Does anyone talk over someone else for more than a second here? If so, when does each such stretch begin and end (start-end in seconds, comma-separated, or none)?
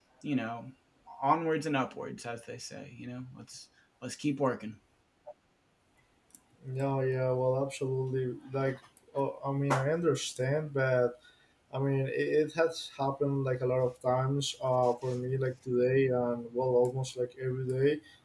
none